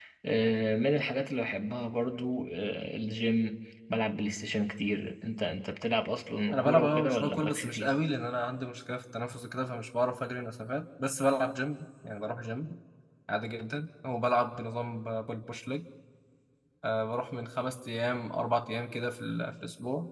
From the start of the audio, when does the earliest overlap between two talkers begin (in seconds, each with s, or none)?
6.5 s